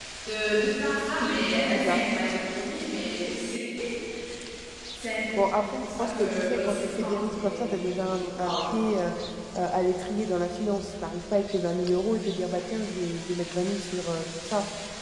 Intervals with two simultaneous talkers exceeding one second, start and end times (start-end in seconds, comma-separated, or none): 5.5-7.7